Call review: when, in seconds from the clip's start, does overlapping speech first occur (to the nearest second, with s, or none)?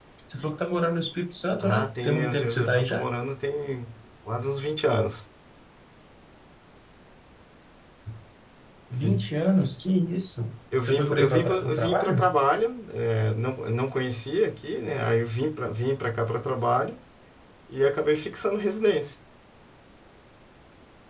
2 s